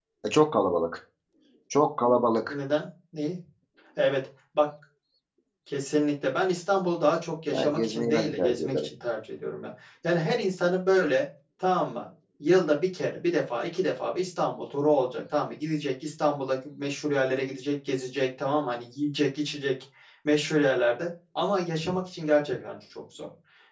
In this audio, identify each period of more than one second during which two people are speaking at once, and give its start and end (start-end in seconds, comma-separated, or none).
7.5-8.9